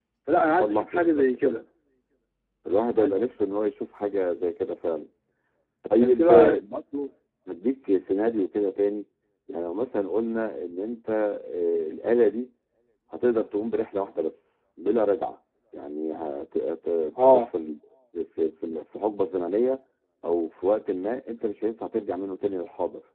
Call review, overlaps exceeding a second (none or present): present